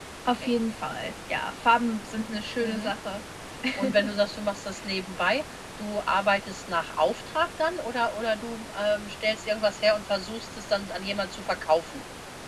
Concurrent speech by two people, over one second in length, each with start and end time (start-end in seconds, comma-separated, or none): none